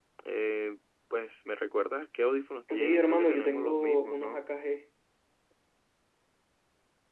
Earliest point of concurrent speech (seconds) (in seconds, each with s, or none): 2.7 s